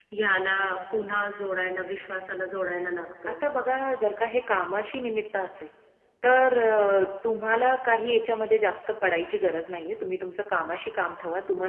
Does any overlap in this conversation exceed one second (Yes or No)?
No